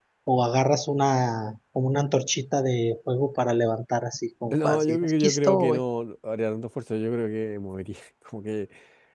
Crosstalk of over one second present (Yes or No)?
Yes